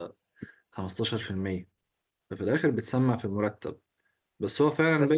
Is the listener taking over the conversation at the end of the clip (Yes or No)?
No